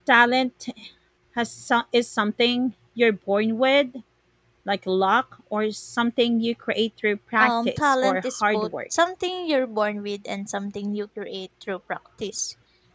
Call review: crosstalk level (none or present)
present